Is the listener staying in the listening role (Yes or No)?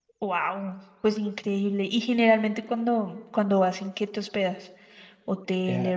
No